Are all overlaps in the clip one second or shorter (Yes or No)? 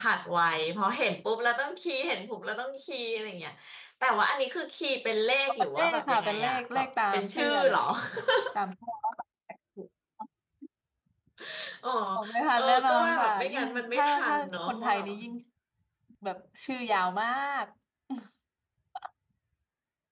No